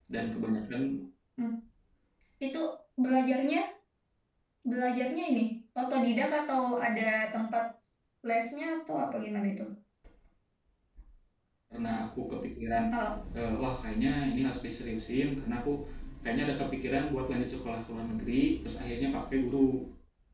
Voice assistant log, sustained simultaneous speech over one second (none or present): none